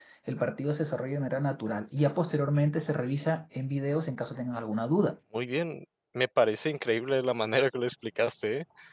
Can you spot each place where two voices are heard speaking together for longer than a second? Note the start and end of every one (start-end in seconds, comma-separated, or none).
none